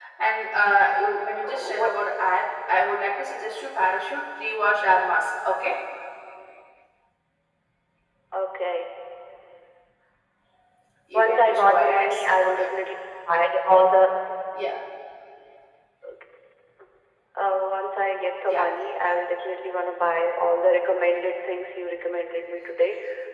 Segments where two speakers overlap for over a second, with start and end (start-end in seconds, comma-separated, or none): 11.1-12.5